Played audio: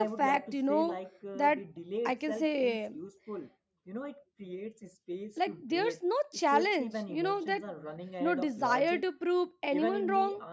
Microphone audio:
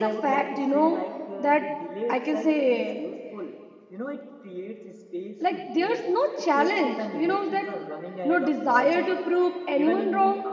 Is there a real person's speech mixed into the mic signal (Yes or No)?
No